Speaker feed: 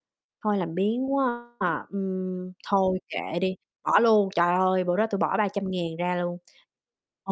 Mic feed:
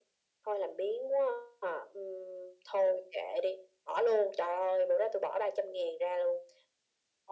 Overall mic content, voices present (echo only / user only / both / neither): echo only